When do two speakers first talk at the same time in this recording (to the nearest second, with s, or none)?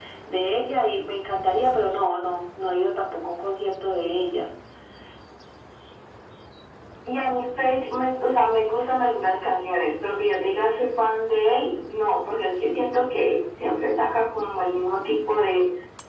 none